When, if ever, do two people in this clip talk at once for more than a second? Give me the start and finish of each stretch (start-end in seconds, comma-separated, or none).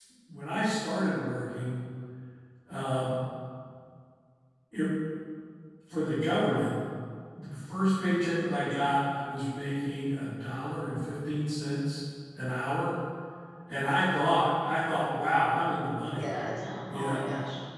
none